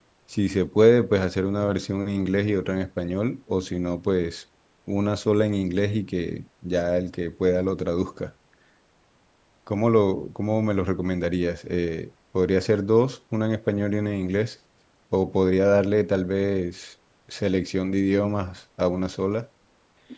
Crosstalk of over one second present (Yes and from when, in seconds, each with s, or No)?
No